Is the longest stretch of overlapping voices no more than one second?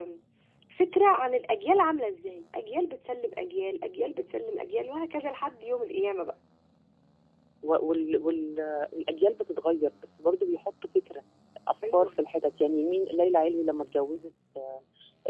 Yes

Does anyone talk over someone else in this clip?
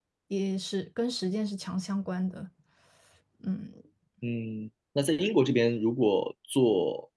No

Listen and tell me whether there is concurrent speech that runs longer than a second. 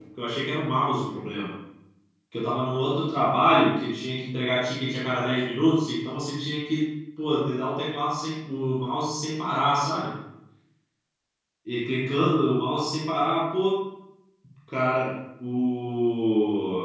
No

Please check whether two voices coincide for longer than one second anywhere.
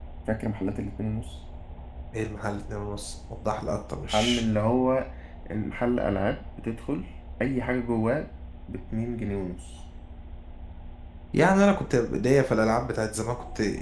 No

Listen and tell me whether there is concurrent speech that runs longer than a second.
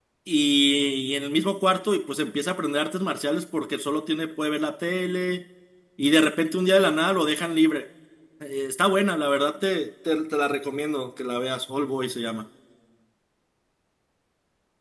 No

